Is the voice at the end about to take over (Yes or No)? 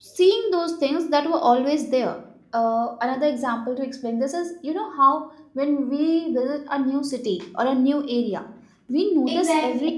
No